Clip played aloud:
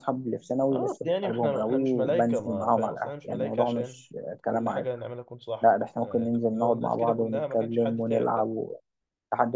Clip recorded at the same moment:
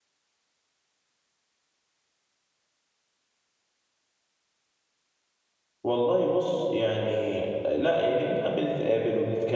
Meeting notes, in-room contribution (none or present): present